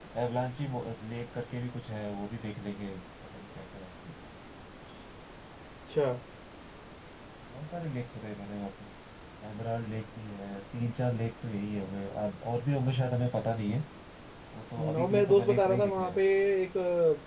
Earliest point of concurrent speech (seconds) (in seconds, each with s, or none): 14.8 s